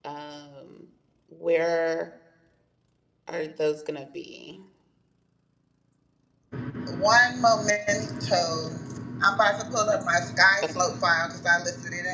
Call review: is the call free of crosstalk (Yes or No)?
Yes